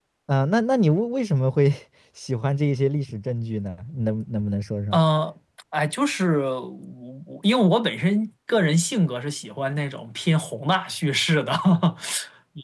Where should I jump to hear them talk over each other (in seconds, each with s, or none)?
none